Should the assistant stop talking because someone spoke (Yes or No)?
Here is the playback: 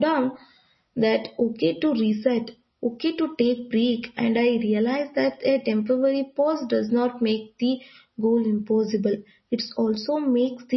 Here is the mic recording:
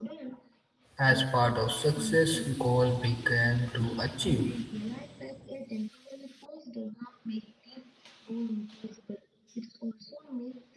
Yes